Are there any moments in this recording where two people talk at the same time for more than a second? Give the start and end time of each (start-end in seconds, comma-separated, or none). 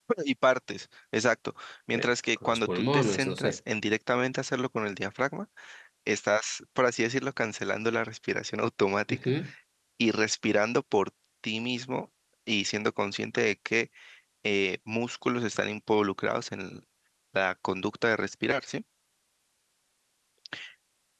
2.0-3.6